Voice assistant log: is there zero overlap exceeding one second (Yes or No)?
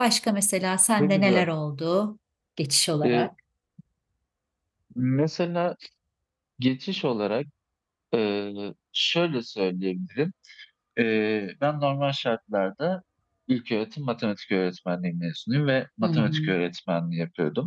Yes